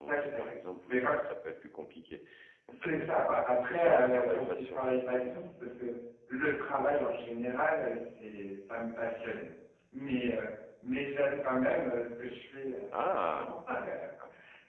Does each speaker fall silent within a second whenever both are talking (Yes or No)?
No